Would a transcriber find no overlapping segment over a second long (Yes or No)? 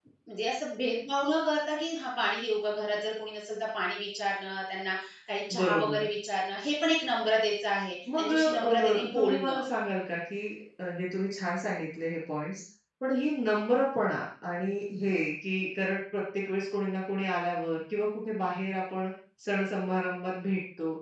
No